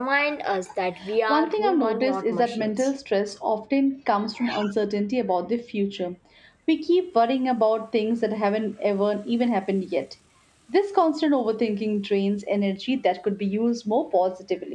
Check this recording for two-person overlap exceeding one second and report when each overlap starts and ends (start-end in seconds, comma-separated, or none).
1.3-2.9